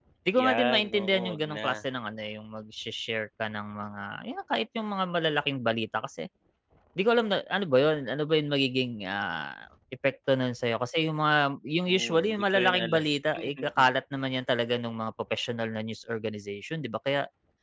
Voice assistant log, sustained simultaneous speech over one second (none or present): present